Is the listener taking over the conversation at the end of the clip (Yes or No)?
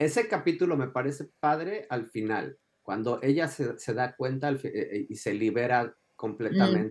Yes